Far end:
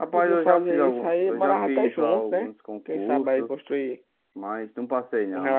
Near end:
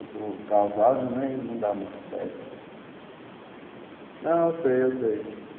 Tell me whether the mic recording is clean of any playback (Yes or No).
Yes